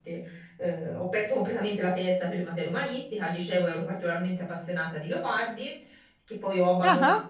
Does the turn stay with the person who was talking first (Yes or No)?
Yes